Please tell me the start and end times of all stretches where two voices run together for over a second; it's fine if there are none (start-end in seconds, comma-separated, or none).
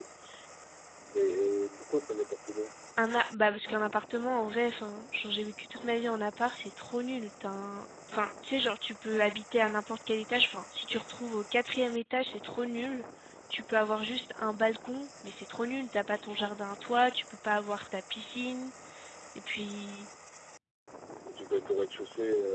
none